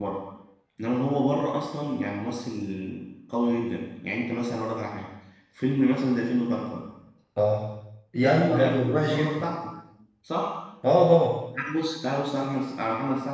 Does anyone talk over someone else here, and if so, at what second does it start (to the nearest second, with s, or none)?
8 s